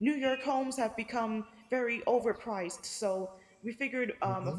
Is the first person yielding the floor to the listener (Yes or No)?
No